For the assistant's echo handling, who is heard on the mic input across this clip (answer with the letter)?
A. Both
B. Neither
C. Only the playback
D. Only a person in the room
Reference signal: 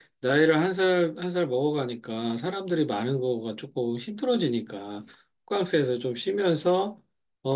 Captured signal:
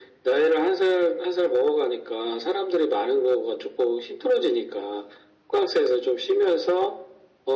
C